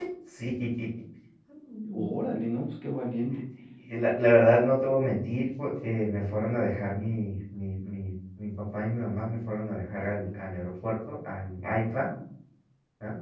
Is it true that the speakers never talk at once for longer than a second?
Yes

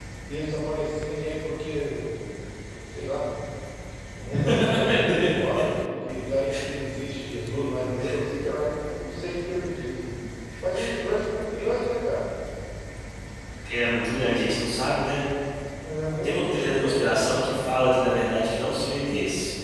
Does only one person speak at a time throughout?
No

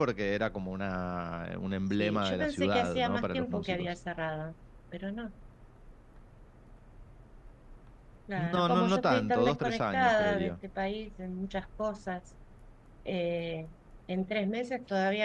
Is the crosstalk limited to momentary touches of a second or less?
No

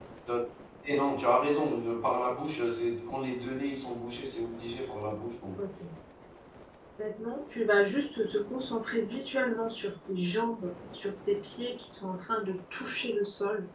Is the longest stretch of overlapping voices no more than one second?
Yes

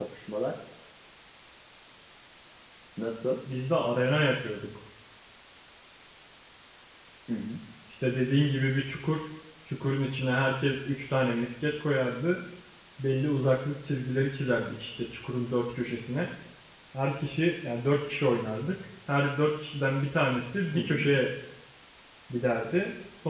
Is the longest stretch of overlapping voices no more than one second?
Yes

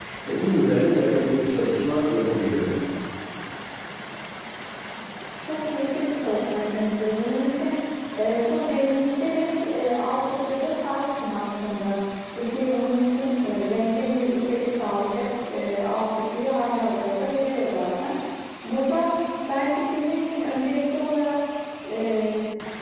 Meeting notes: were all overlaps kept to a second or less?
Yes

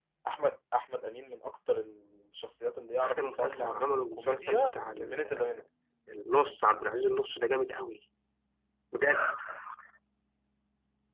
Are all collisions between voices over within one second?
No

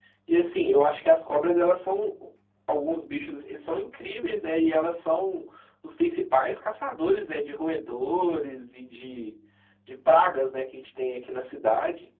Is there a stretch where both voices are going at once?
No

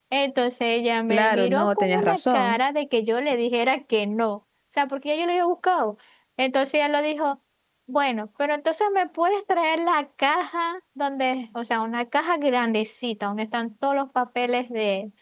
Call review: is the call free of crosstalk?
No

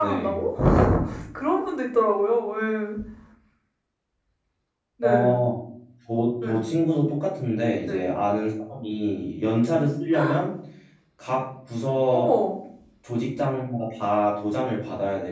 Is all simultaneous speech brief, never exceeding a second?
Yes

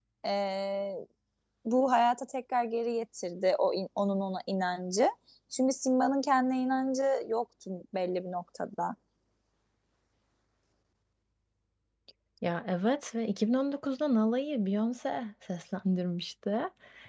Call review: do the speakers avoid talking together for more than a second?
Yes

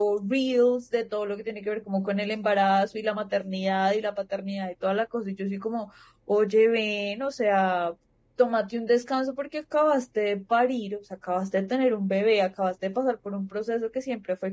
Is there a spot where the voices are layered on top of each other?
No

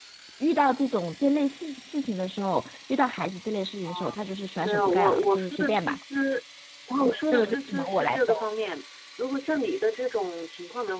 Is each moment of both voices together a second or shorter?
No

